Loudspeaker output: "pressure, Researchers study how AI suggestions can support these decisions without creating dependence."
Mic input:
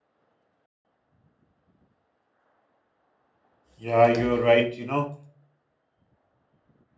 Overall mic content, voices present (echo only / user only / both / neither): user only